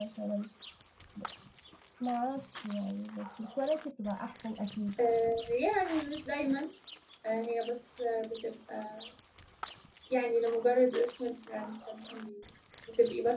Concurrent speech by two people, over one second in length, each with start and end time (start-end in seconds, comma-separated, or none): none